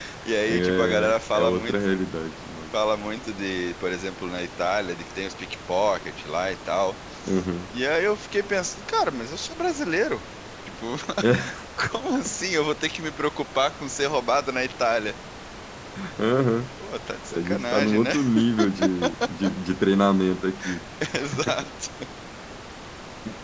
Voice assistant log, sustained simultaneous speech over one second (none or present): present